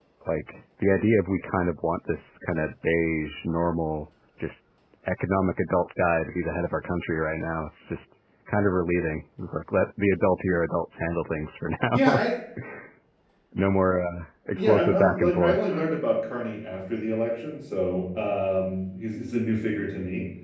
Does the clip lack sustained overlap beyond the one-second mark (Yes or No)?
No